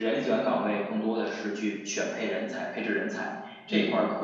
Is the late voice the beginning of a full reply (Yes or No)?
No